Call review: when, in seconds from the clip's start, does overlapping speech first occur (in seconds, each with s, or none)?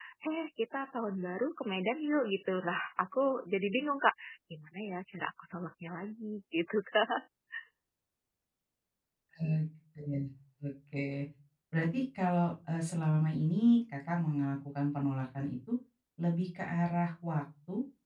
none